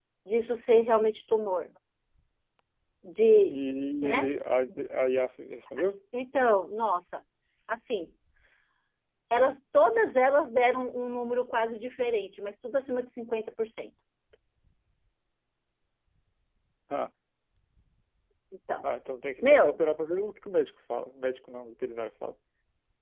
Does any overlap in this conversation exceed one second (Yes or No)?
No